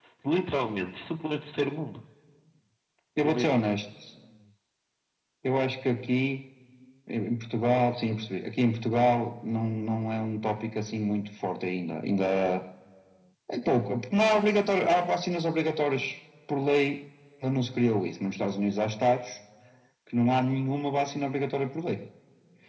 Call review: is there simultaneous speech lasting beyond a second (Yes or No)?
No